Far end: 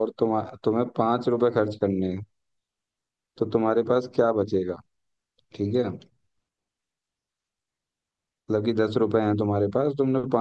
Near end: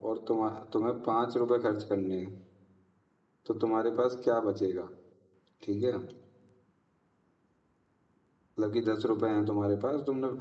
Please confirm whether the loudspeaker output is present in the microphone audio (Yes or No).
Yes